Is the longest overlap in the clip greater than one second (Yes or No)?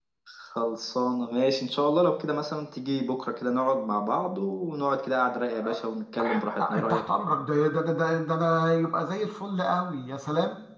No